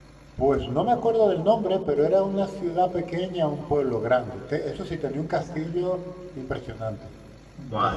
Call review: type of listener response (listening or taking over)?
taking over